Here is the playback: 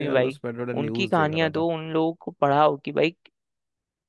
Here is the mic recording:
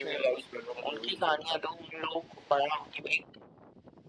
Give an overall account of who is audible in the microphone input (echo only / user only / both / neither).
echo only